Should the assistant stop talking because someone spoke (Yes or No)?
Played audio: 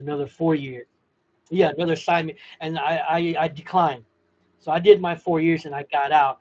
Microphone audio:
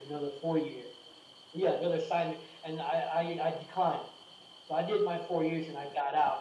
No